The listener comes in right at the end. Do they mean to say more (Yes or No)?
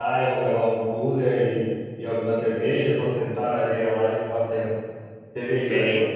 Yes